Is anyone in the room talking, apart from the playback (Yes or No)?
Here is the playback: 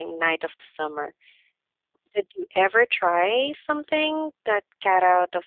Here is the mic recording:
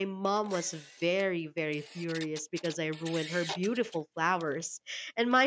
Yes